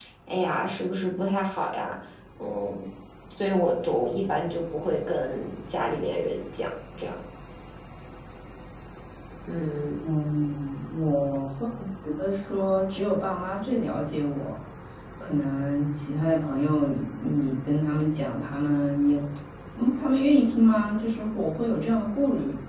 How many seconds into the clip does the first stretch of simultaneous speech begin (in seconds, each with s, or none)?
none